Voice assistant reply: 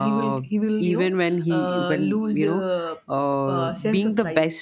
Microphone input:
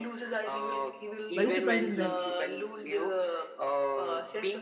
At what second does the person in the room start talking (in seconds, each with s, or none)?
1.3 s